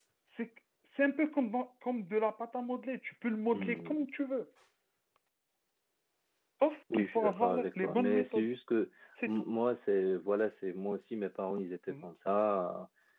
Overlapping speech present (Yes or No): Yes